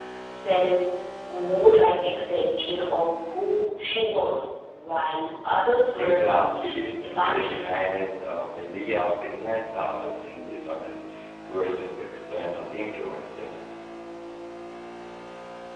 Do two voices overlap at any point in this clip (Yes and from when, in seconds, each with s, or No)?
Yes, from 6.0 s